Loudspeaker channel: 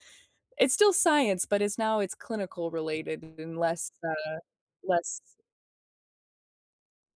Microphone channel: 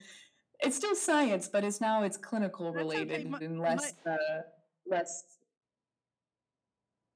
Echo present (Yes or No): Yes